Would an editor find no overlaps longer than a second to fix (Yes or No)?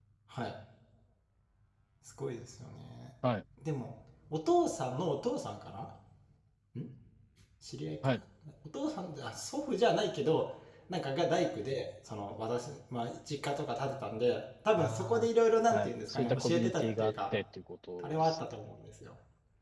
No